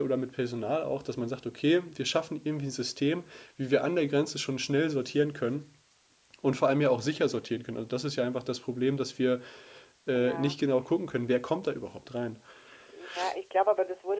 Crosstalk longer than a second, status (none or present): none